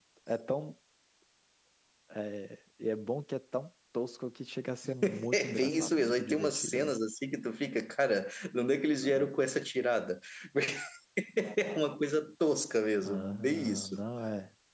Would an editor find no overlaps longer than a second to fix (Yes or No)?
No